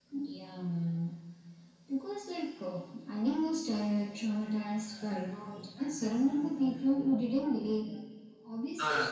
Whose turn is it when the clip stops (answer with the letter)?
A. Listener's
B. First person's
B